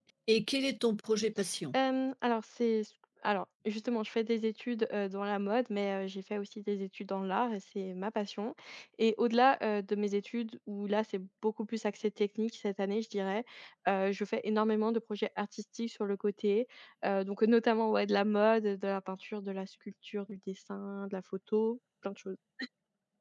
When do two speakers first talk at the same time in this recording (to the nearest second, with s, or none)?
none